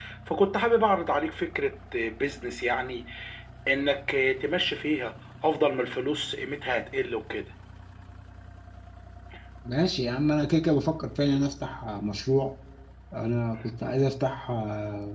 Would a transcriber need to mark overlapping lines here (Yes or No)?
No